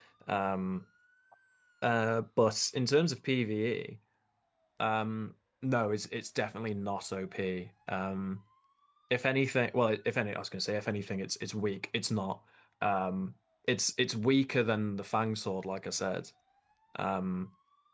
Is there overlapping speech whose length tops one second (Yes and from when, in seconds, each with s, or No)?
No